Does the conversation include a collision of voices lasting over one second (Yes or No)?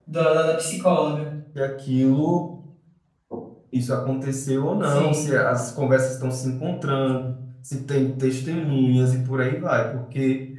No